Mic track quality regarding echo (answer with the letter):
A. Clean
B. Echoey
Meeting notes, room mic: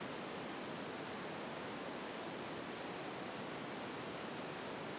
A